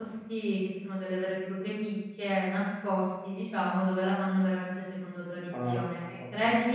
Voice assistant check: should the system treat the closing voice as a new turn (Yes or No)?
No